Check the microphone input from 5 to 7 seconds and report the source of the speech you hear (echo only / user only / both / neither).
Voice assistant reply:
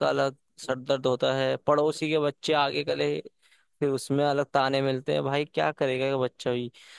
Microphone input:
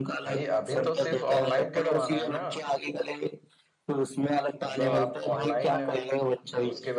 both